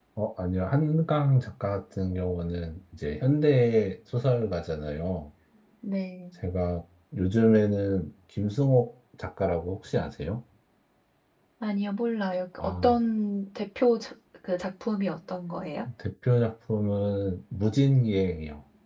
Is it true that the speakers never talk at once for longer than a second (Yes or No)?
Yes